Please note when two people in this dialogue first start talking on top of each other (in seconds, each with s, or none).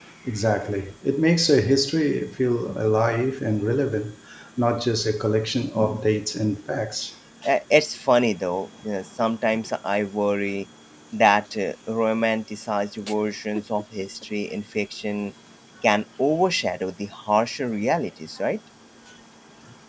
none